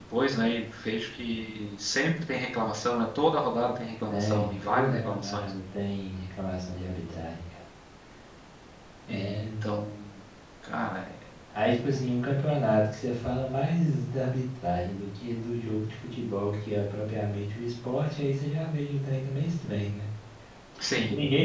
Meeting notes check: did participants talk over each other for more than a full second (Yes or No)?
Yes